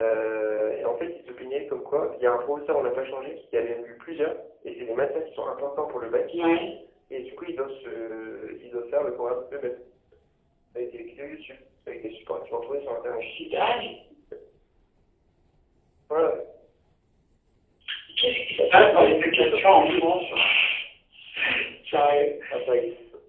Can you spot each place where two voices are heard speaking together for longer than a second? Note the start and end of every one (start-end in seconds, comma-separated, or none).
18.6-20.0